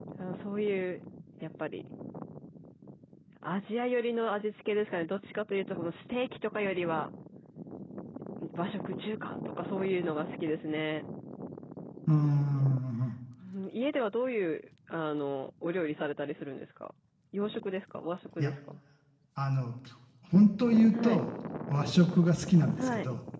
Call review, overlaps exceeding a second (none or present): none